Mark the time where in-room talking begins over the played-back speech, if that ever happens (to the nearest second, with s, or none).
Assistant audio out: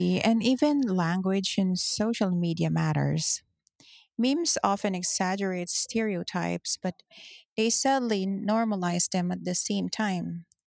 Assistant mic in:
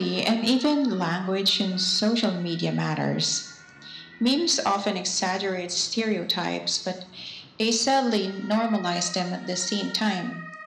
none